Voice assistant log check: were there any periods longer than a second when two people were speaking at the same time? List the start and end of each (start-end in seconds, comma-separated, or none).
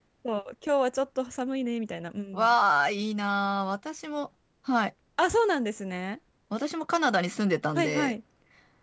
none